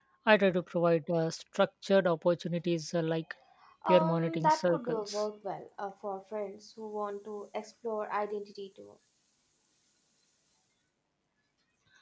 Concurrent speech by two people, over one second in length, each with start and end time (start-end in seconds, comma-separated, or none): 3.9-5.2